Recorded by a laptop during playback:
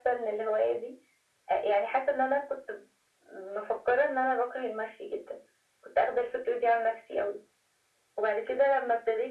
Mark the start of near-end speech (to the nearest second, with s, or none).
none